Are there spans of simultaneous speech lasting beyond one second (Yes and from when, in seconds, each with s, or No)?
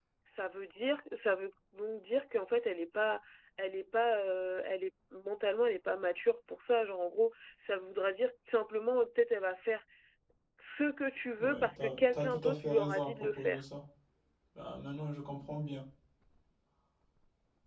Yes, from 11.4 s